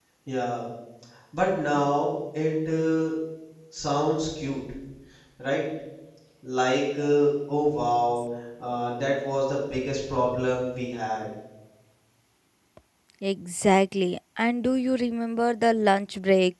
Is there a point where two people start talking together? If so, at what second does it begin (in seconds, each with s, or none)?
none